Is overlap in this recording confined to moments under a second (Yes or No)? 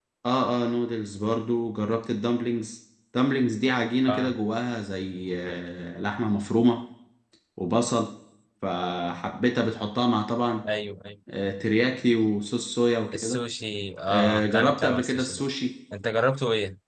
No